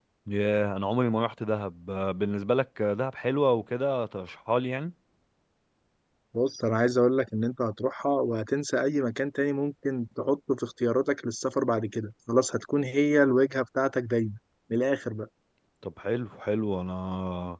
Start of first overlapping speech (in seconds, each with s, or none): none